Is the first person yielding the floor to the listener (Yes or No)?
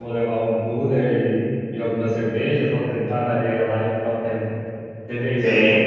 Yes